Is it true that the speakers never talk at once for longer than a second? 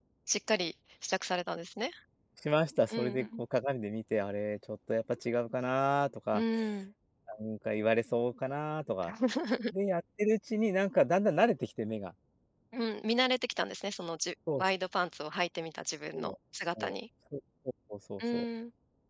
Yes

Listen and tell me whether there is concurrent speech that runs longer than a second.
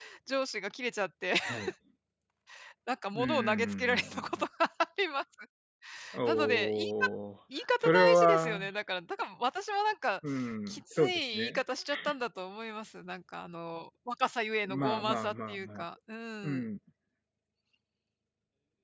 Yes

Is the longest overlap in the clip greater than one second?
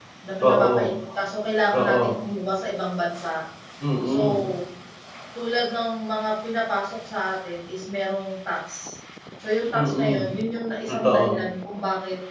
No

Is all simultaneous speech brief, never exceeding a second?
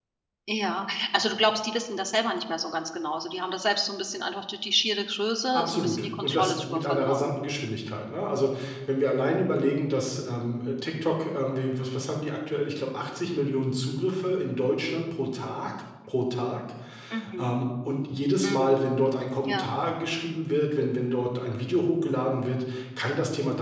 No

